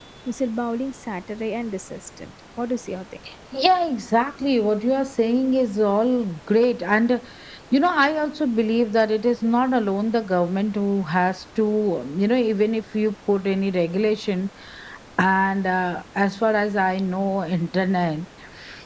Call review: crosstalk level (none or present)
none